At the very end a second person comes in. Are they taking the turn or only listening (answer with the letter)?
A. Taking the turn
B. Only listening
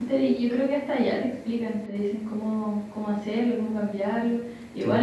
B